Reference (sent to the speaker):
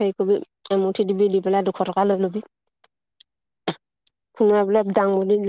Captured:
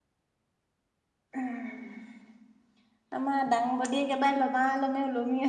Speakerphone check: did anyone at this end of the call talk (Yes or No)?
Yes